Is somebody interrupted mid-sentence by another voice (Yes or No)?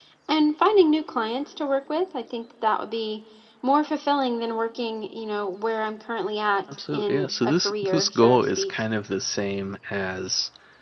Yes